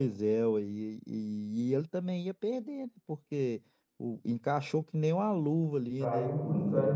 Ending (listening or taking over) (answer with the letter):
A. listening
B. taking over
B